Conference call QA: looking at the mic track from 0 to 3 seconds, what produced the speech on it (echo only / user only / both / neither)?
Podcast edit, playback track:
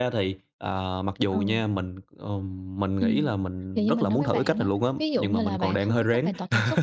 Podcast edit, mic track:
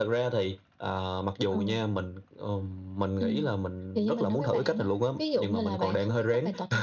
echo only